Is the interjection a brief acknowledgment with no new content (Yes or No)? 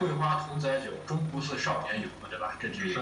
No